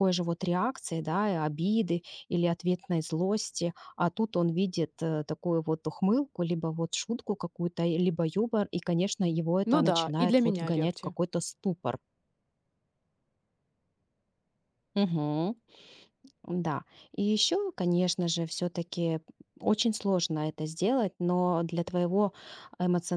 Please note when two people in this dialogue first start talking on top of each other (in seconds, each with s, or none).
9.7 s